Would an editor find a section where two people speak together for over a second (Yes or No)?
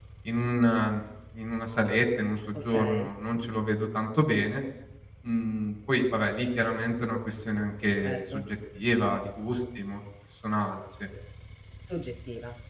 No